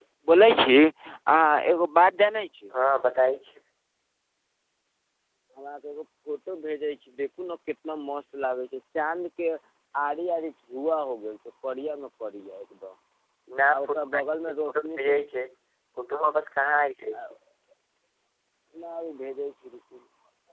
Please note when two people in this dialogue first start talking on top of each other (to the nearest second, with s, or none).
14 s